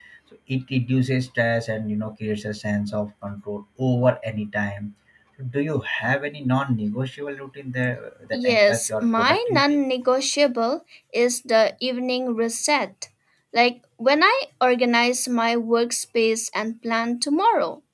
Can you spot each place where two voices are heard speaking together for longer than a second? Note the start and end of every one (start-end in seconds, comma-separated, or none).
8.3-9.8